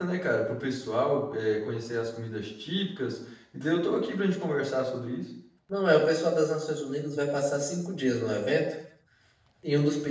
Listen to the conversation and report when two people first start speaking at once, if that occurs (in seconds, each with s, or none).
none